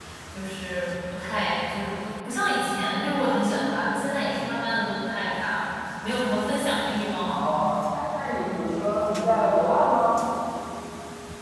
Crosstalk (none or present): none